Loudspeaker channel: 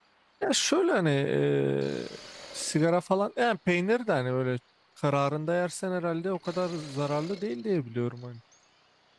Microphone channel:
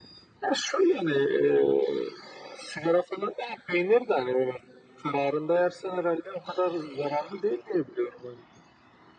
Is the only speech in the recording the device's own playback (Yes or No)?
Yes